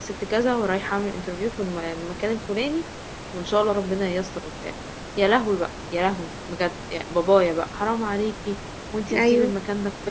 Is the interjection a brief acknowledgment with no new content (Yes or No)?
Yes